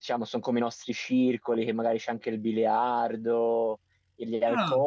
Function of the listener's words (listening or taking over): listening